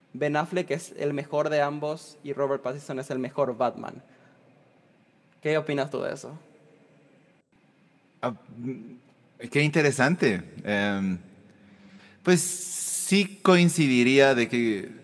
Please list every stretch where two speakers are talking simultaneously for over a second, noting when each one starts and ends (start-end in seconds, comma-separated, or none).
none